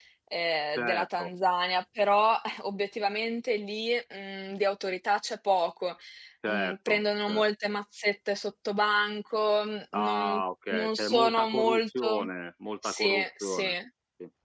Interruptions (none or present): present